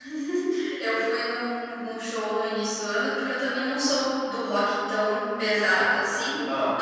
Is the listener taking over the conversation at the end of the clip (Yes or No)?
No